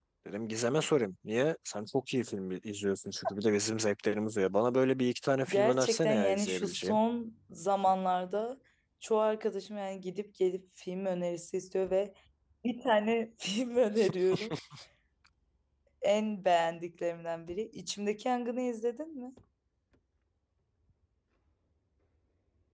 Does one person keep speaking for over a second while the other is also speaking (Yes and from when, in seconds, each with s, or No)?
Yes, from 5.5 s